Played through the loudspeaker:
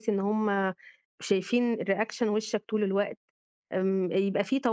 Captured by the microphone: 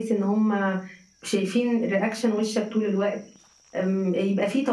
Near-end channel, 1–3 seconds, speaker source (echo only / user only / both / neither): echo only